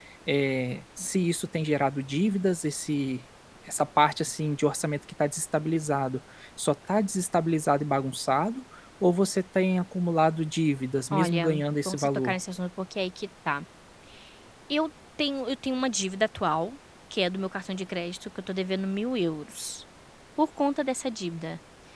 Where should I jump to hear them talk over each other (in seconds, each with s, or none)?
11.1 s